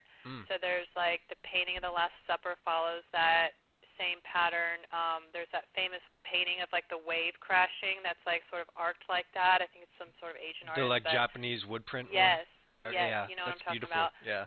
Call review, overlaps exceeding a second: present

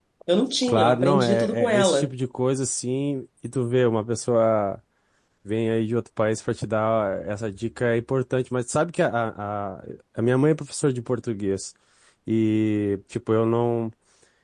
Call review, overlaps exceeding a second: present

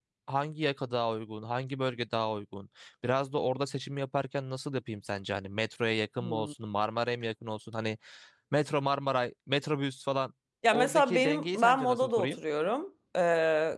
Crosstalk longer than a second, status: present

